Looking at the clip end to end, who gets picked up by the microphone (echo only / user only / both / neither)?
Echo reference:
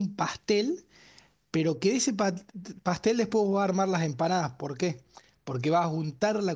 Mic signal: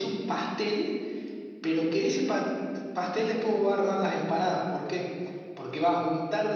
echo only